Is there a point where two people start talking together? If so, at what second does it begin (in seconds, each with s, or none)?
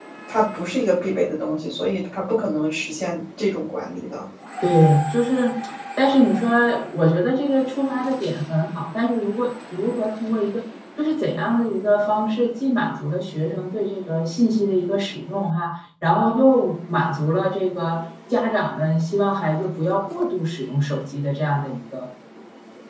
none